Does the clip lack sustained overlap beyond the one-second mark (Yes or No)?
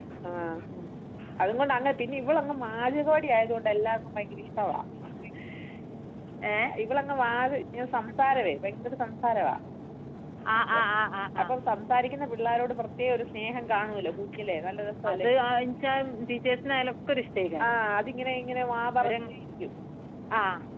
Yes